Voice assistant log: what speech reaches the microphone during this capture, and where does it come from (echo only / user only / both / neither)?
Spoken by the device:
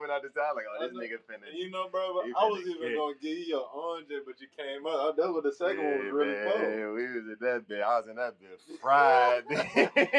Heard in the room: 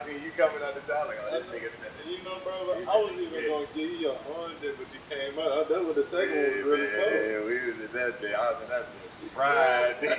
echo only